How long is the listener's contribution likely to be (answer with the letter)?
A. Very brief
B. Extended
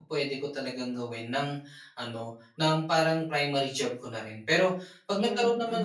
A